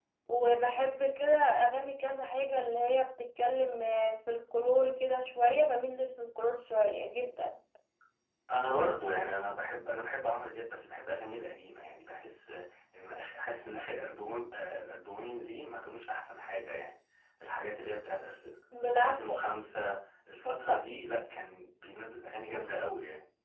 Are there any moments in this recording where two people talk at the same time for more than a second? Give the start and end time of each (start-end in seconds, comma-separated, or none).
none